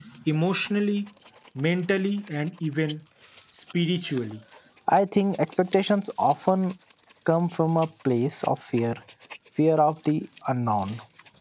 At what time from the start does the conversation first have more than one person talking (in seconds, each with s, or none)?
none